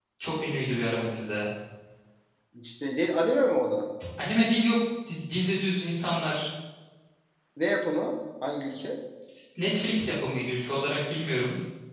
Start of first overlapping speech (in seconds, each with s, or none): none